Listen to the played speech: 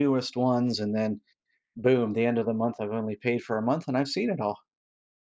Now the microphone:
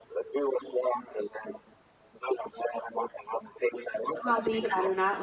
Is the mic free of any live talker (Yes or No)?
No